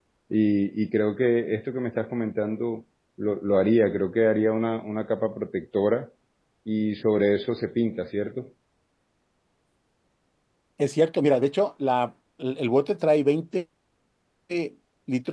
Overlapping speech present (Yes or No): No